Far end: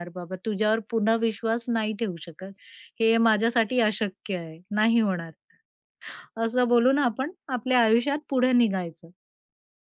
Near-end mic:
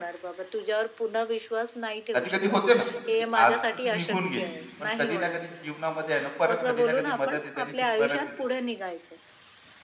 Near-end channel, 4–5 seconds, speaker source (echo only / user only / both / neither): both